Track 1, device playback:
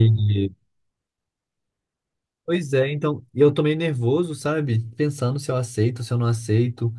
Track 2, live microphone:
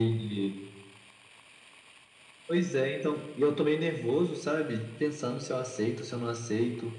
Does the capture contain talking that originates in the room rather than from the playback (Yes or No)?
No